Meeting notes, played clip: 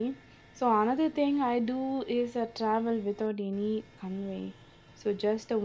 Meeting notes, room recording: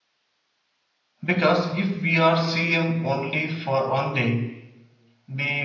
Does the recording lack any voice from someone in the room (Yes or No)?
No